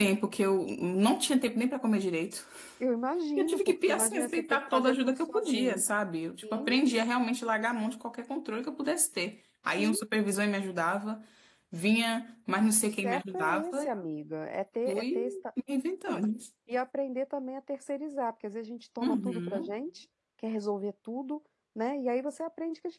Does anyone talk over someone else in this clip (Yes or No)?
Yes